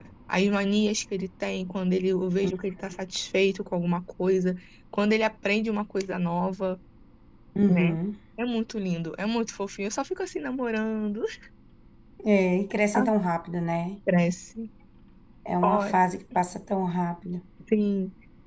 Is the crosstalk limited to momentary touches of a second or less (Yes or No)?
Yes